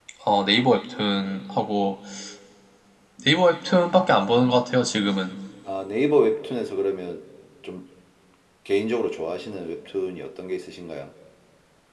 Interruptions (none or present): none